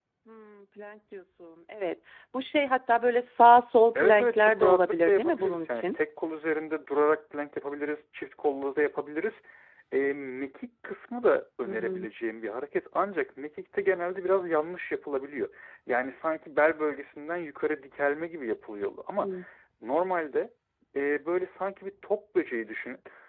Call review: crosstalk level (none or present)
present